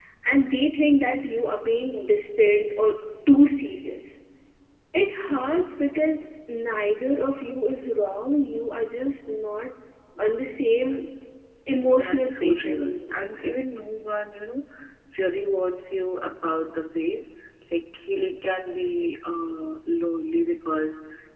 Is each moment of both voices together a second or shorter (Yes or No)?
No